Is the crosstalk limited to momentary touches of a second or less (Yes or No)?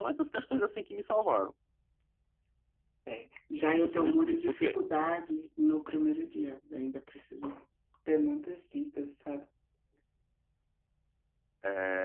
No